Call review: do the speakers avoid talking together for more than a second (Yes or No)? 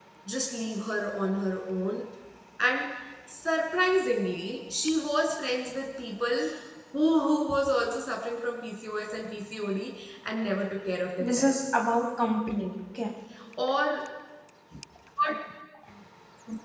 Yes